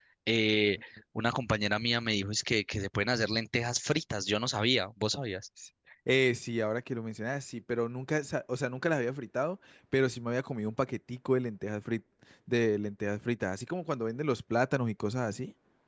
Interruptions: none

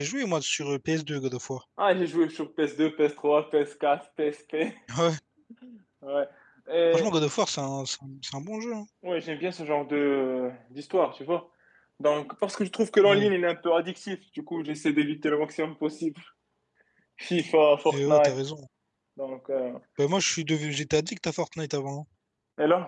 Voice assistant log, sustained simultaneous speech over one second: none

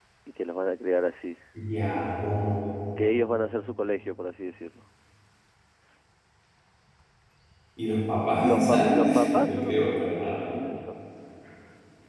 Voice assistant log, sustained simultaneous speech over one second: present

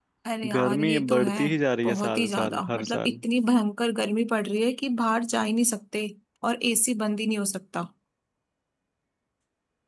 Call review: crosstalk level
present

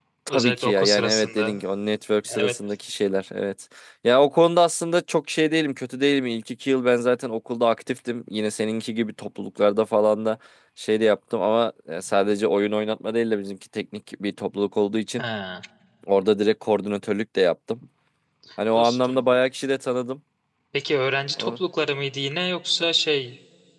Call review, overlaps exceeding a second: present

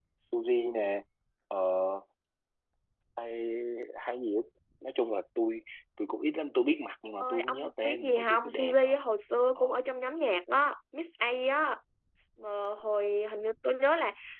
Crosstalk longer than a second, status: present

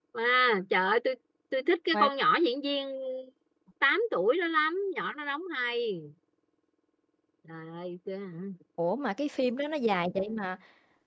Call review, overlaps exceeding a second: none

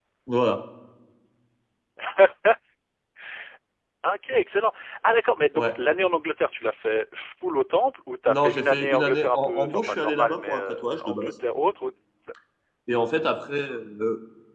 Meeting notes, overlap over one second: present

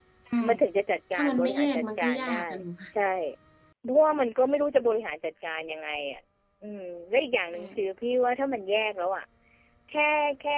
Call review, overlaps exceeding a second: present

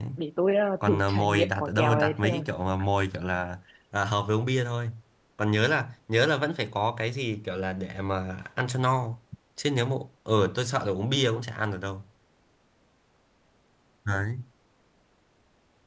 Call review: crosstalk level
present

